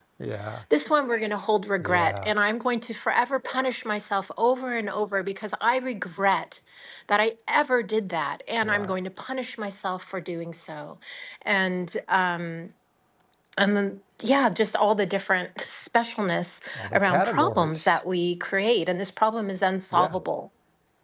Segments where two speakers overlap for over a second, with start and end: 16.8-18.0

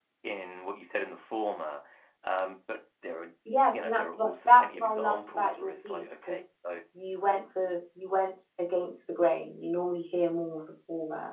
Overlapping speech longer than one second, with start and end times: 3.7-6.4

